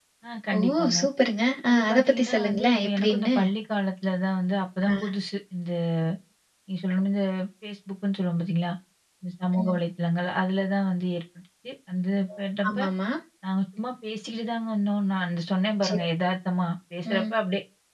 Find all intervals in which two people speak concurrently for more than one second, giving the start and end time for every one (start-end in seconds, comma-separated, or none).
1.7-3.4